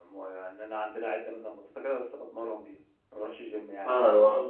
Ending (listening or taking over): taking over